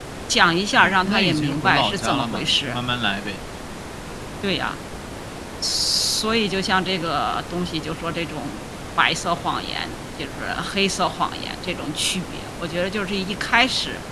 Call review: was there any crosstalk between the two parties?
Yes, from 0.7 s

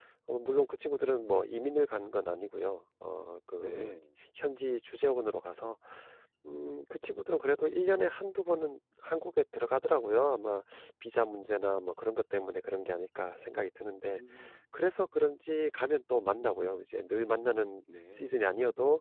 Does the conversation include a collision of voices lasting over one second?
No

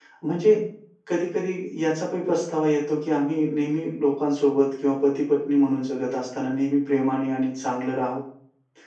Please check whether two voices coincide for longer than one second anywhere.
No

